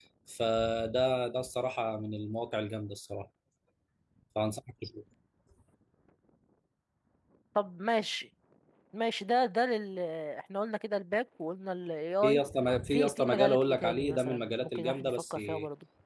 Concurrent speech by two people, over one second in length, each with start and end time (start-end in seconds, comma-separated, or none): 12.9-15.4